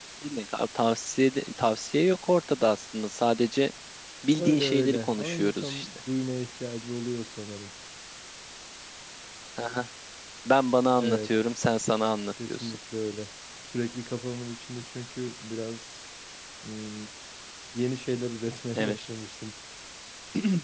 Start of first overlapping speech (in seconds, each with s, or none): 4.4 s